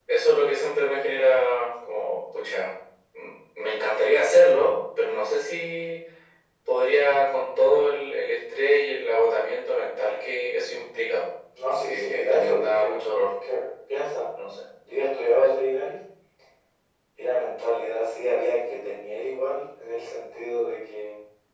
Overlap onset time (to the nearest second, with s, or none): 12 s